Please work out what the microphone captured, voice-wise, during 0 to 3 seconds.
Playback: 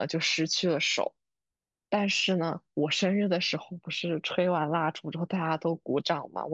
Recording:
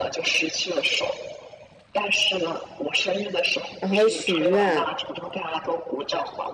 echo only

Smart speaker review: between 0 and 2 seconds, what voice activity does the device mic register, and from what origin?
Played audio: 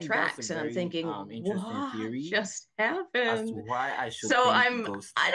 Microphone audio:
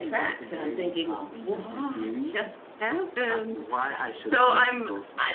echo only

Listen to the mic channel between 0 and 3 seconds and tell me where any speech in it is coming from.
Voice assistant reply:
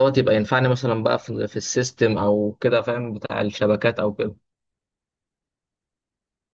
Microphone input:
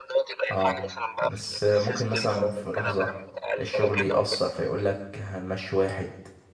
both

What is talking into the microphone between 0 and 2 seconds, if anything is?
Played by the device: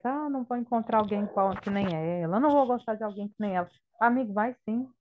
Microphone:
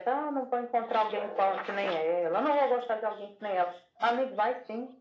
echo only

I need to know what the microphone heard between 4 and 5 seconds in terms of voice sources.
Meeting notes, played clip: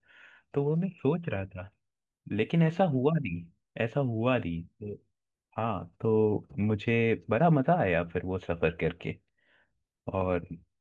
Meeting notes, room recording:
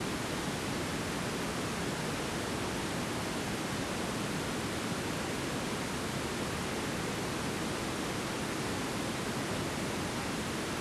neither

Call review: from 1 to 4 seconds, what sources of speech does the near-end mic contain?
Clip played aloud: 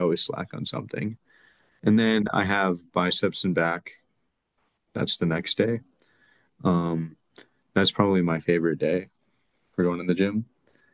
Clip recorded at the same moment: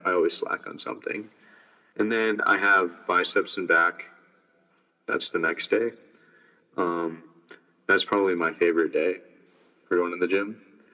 echo only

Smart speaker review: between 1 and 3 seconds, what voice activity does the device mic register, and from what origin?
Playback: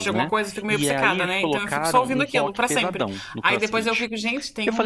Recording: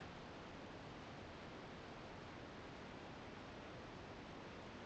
neither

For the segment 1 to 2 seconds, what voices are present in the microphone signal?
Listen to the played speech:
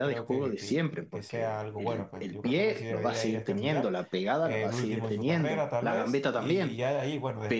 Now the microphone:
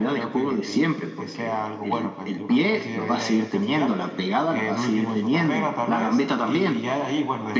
echo only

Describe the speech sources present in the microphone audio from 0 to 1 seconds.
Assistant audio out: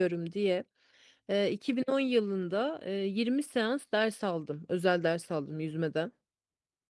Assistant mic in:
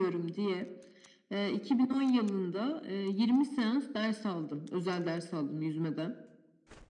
echo only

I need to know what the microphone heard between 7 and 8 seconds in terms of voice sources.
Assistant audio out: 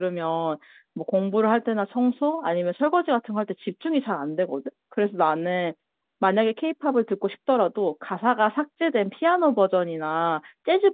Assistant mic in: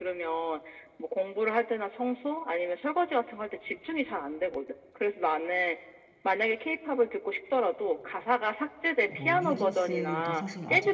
echo only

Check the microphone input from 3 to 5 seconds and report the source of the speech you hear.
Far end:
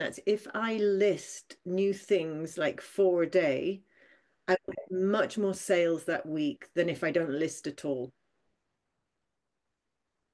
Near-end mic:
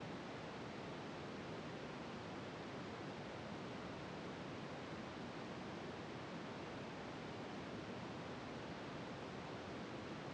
neither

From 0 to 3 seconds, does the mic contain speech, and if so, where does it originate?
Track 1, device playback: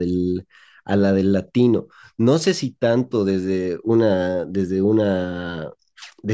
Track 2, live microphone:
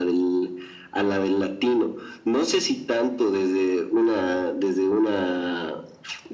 echo only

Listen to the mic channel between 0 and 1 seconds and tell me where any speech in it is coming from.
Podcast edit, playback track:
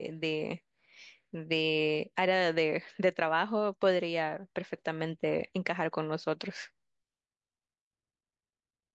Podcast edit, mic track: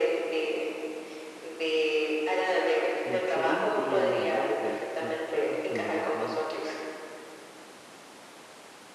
echo only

